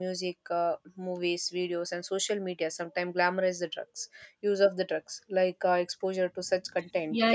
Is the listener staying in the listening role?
No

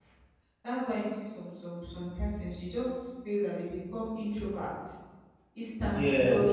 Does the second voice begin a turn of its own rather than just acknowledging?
No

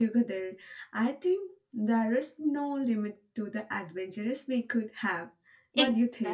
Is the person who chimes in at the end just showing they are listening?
No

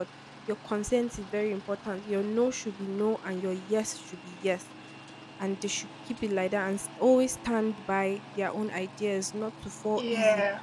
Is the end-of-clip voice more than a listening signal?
No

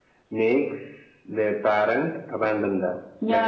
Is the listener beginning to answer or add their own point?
Yes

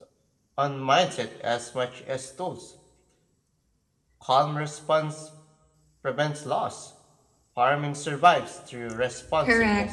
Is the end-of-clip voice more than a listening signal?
Yes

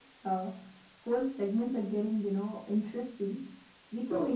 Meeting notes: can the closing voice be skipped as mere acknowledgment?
Yes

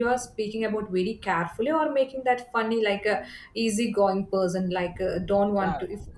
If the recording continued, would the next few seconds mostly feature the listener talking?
No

